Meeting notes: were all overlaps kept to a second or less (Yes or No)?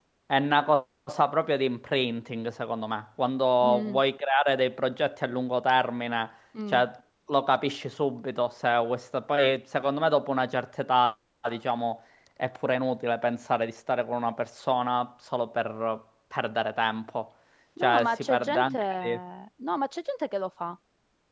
No